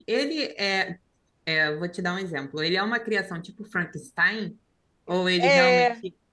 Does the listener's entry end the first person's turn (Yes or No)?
Yes